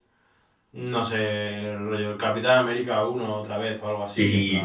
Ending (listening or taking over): taking over